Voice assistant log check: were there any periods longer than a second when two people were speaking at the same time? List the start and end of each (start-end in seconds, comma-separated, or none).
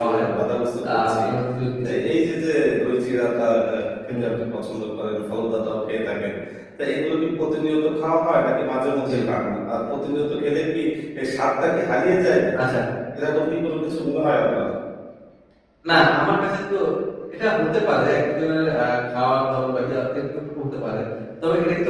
none